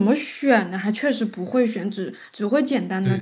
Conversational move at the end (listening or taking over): taking over